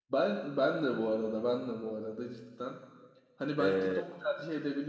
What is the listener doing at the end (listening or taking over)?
listening